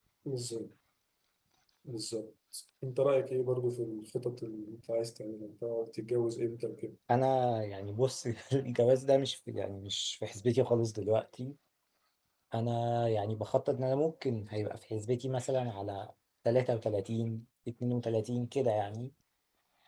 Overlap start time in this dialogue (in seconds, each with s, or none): none